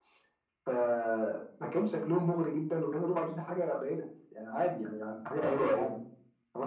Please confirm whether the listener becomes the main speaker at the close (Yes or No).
No